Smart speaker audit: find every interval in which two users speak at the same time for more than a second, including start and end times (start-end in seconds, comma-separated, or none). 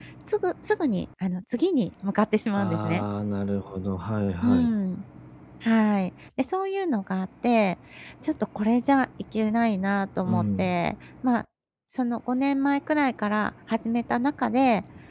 none